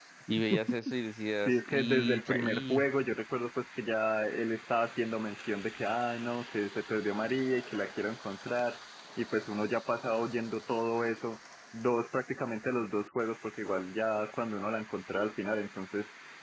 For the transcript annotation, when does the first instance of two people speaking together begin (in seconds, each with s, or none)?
1.4 s